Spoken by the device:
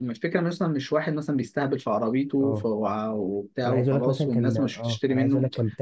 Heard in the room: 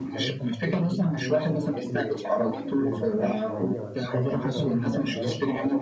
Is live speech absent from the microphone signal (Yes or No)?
No